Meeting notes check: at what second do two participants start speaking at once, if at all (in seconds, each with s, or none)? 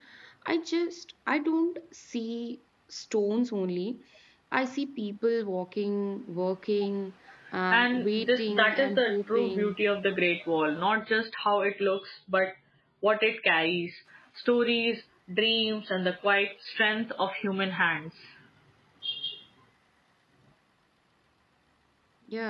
7.7 s